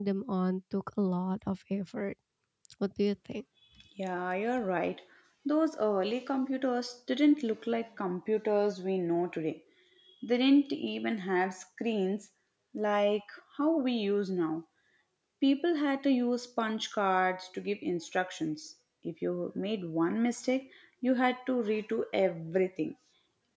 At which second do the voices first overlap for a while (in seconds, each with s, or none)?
none